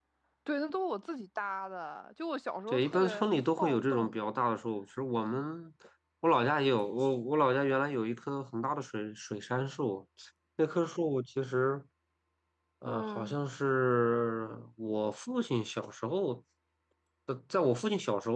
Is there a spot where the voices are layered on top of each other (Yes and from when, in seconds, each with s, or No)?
Yes, from 2.7 s